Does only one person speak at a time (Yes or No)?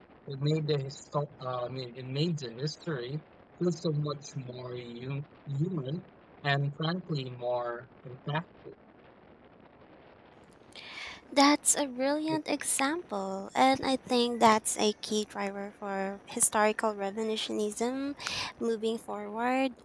Yes